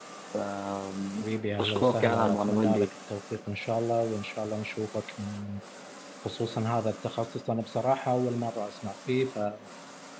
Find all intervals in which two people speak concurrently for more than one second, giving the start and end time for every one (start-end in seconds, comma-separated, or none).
1.6-2.9